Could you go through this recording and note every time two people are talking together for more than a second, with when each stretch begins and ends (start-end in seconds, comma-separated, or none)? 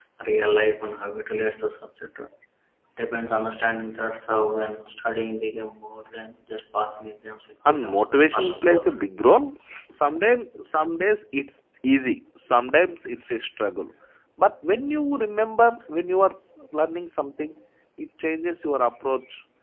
7.7-9.0